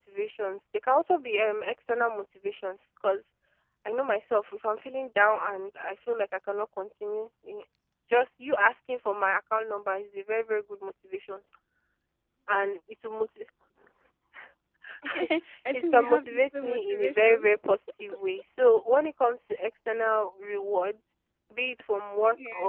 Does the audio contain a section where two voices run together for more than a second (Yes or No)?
Yes